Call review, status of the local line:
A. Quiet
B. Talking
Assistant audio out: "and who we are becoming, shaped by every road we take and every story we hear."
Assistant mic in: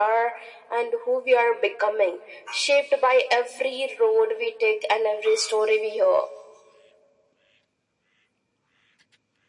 A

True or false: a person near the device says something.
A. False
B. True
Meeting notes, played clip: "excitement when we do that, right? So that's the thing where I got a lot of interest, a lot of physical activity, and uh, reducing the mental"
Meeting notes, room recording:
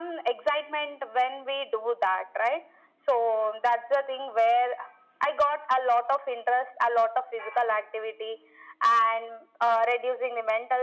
A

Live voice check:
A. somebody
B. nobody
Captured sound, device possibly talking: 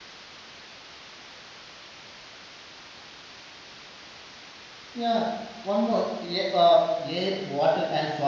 A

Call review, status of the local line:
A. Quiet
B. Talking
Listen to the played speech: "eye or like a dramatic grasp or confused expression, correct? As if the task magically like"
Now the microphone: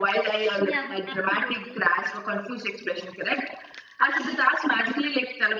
B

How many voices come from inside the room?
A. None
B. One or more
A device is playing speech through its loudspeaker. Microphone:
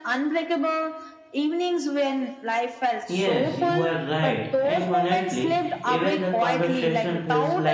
B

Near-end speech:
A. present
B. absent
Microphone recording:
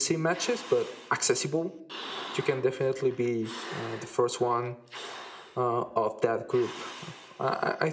B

